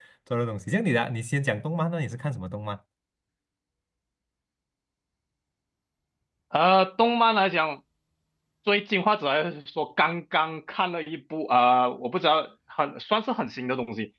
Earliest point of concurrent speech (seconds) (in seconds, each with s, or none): none